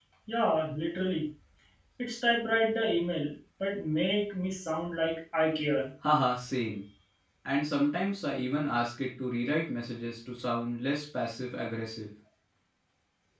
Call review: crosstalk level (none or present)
none